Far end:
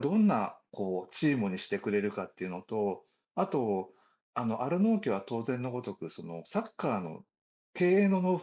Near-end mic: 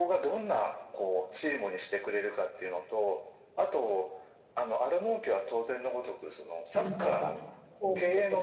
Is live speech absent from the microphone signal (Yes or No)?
No